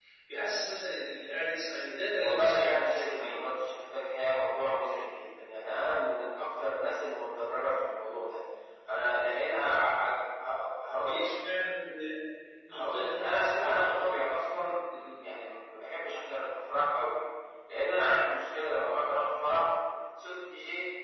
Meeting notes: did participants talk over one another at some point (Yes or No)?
Yes